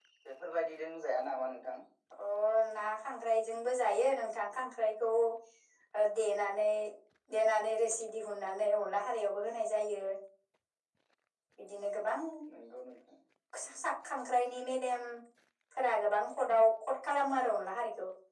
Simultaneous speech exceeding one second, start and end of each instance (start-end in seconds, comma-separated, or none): none